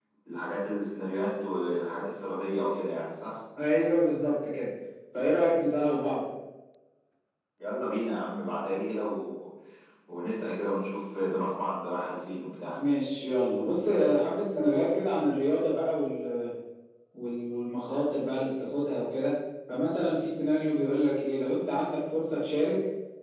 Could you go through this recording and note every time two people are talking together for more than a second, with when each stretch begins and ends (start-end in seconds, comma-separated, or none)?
none